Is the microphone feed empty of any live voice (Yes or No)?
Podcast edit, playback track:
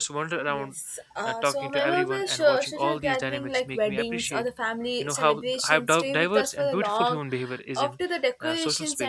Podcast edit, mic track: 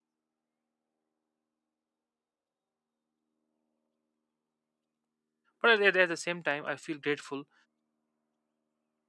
No